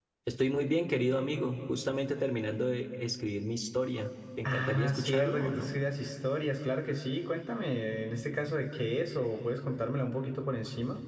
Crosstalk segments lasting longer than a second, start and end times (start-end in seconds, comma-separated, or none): 4.5-5.7